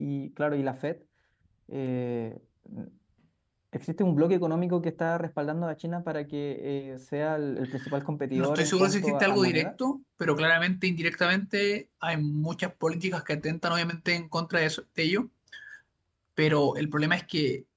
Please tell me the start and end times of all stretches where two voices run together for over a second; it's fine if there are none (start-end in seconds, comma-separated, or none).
8.3-9.7